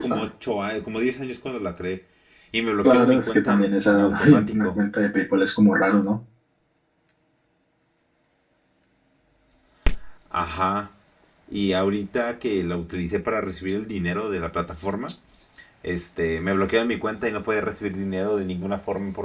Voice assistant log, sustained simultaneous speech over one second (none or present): present